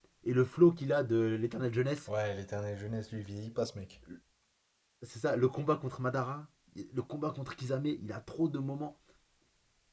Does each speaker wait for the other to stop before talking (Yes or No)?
Yes